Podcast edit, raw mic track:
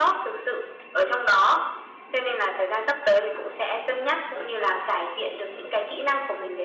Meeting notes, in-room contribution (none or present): none